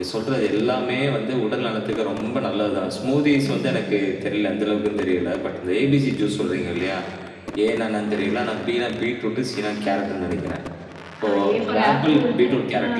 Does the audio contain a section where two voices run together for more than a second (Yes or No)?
Yes